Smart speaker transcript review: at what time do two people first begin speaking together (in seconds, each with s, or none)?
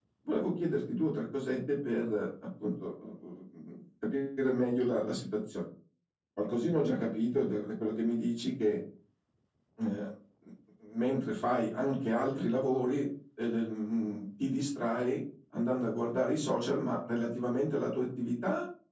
none